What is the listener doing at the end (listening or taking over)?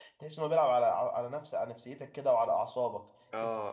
taking over